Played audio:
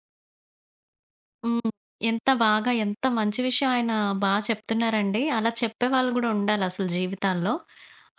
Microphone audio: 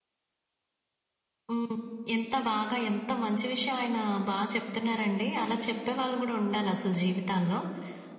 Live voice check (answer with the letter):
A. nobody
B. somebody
A